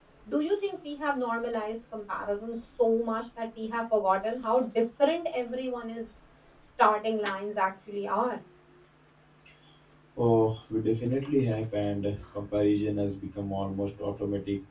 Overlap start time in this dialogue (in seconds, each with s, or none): none